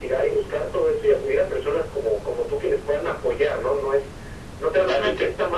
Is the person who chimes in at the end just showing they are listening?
Yes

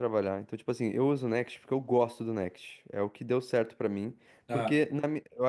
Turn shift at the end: No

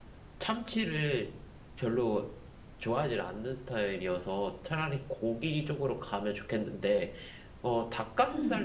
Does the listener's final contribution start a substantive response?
No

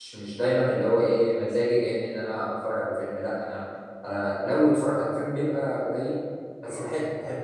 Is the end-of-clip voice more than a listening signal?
No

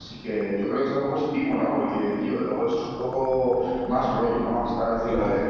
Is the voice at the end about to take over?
No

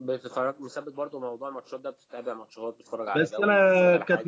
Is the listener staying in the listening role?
No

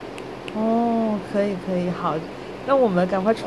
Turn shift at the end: No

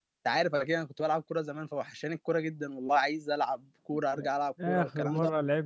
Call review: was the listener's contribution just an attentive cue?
No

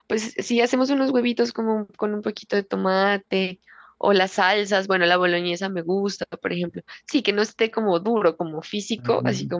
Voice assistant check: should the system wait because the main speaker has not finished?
No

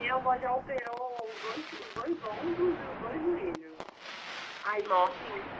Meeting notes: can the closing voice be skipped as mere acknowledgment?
Yes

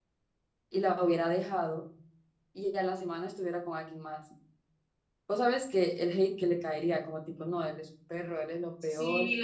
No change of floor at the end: No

